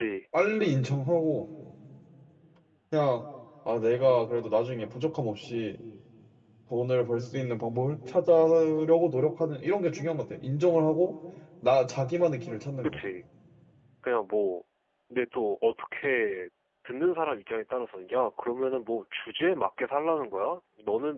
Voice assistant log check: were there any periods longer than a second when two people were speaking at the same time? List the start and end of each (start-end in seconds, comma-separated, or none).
none